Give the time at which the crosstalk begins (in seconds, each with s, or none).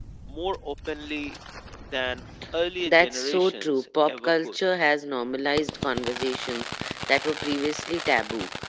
2.8 s